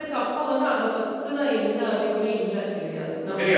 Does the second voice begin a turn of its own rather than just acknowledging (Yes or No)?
No